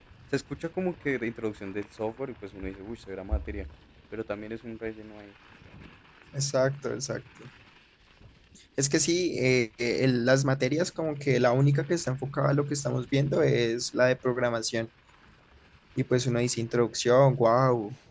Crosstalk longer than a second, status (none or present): none